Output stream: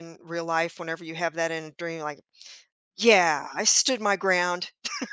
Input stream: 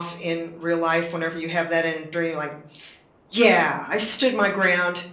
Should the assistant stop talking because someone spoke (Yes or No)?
No